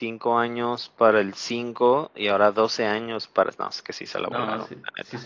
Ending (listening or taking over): taking over